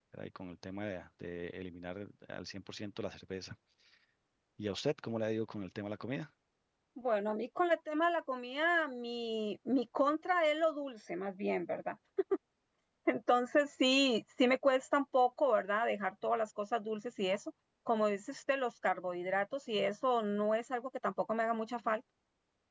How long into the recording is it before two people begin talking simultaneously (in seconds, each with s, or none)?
none